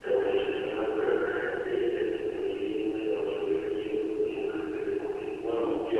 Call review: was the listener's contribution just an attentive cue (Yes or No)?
No